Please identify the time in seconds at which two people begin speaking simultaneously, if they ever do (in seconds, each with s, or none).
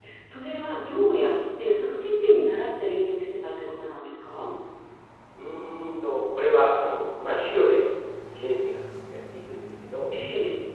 none